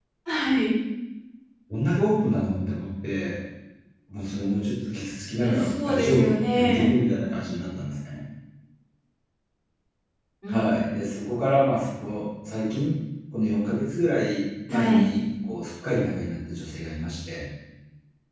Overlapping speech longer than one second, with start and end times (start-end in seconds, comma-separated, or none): 5.4-7.0